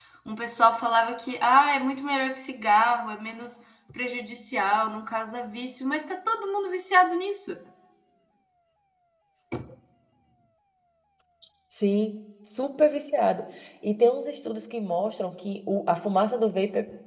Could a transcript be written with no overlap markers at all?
Yes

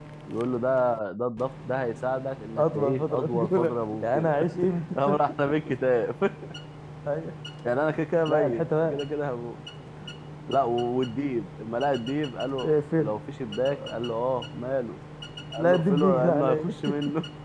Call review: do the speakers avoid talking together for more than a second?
No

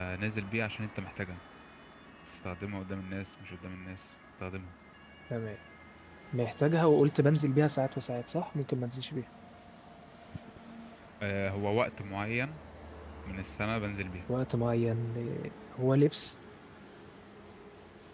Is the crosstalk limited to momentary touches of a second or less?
Yes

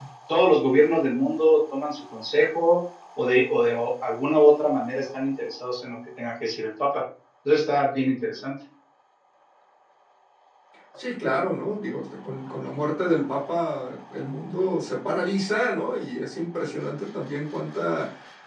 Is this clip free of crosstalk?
Yes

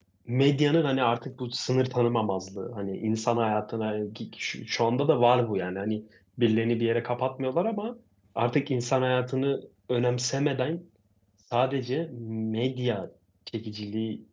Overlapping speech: No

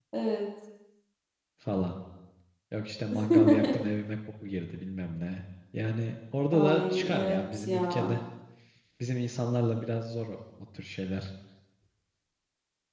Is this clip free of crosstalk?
No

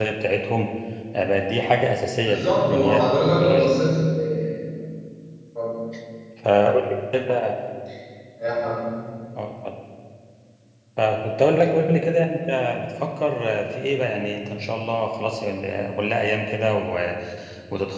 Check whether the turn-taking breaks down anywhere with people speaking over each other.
Yes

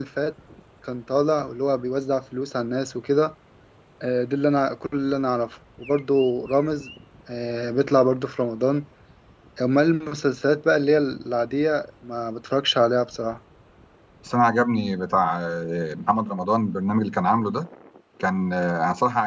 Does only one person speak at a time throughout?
Yes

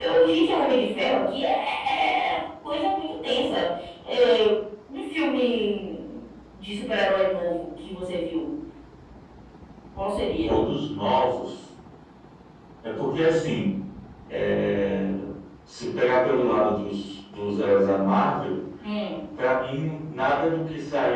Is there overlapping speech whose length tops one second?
No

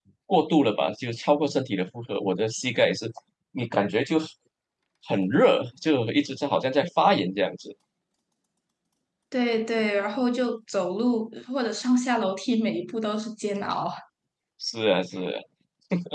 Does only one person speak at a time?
Yes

